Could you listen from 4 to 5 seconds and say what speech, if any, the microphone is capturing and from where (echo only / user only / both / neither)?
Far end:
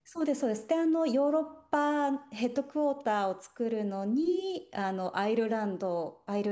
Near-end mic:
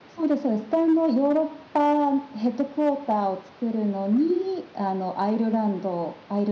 echo only